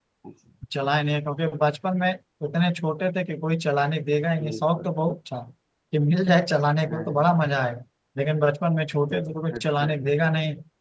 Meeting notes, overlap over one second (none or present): none